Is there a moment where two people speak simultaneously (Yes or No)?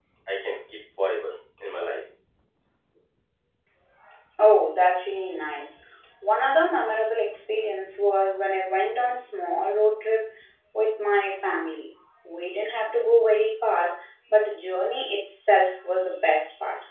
No